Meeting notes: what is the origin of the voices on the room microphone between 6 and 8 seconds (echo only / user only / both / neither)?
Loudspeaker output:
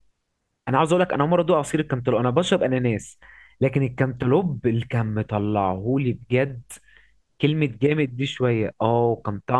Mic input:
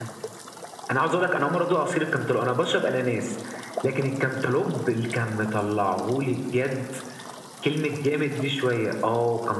echo only